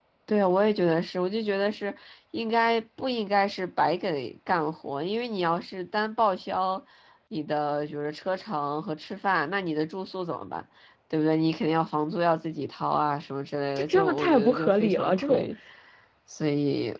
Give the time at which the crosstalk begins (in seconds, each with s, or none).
13.8 s